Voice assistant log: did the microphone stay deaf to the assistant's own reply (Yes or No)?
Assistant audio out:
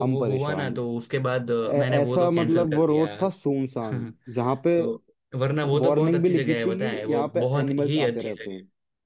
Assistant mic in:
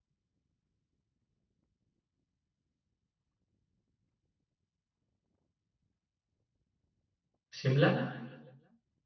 Yes